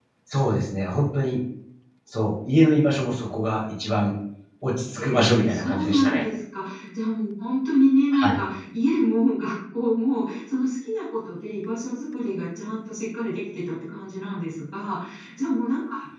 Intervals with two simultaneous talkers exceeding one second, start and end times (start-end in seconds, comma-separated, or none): 5.0-6.2